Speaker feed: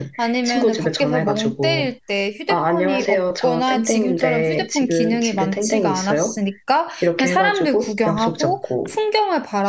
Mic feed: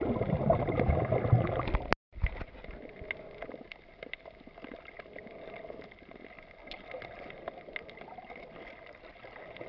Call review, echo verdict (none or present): none